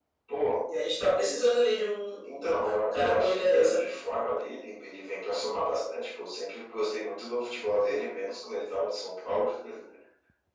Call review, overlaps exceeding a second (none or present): present